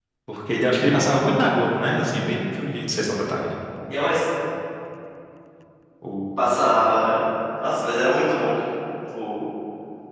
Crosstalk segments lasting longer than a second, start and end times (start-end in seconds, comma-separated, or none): none